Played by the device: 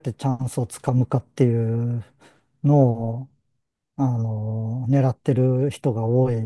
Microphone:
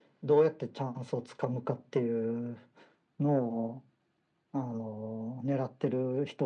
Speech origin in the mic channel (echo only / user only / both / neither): echo only